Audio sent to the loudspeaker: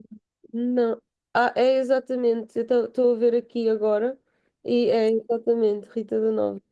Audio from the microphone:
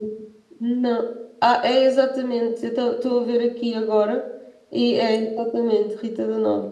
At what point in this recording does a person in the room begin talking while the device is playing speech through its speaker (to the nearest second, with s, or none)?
none